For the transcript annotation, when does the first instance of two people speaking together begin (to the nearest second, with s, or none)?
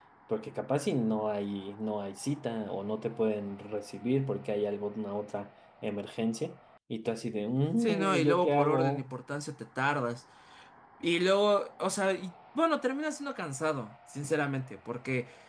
8 s